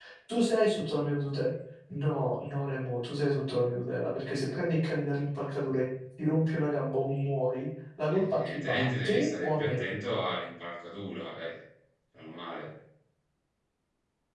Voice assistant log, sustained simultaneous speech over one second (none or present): present